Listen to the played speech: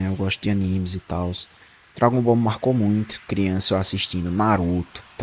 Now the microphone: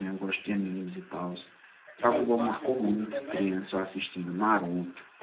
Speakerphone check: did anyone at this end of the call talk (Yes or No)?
Yes